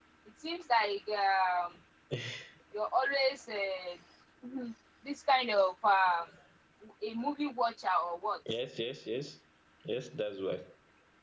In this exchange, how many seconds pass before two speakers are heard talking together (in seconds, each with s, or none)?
none